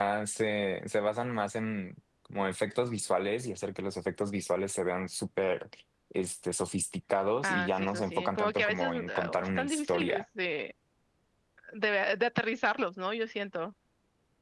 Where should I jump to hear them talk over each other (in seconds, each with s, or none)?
7.4 s